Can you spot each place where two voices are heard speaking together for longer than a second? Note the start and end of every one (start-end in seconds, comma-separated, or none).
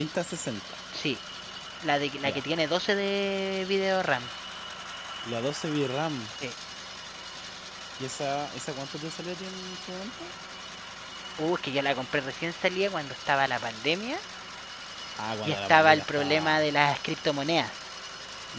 15.4-16.7